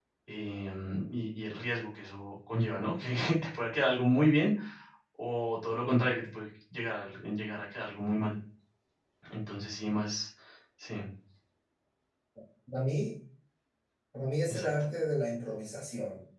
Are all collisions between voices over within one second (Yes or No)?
Yes